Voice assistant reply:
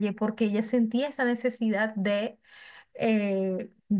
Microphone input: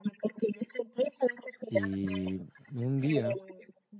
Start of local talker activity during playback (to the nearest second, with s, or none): 2 s